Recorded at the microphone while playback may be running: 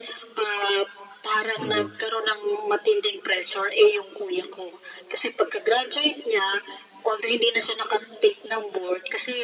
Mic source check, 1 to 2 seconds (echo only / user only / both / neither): both